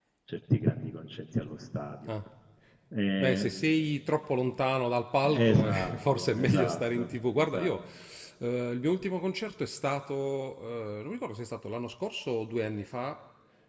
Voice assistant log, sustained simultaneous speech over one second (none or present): present